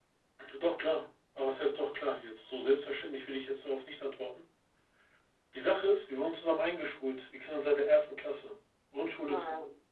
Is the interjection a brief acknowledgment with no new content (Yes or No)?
Yes